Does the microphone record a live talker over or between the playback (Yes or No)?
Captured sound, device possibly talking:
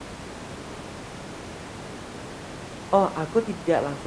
Yes